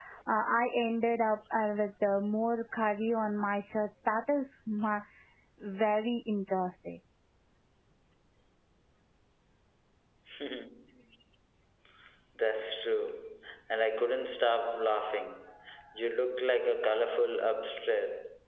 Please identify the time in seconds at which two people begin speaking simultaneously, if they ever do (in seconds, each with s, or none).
none